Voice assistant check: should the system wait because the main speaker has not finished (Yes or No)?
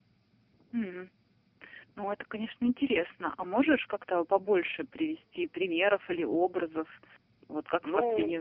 Yes